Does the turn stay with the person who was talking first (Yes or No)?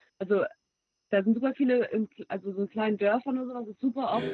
Yes